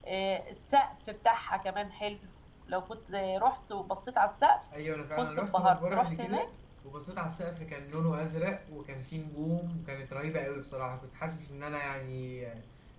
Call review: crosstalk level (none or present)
present